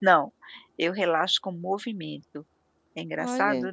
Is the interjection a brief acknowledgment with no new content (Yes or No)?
No